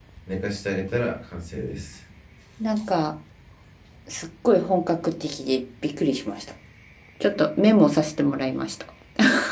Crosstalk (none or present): none